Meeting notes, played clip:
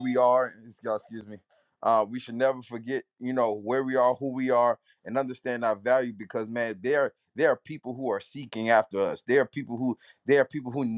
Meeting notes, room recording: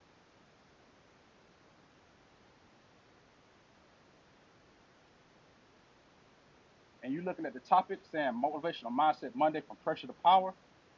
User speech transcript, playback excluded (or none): and you're looking at the topic saying motivational mindset Monday from pressure to power,